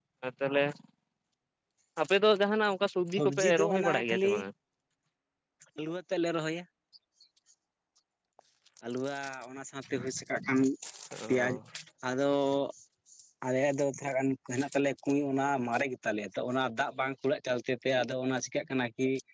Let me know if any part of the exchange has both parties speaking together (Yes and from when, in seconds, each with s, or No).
Yes, from 3.1 s